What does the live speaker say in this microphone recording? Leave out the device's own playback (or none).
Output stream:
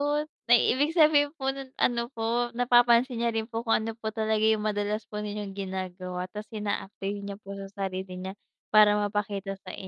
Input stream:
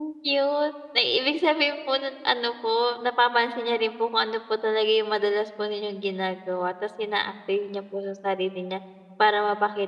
none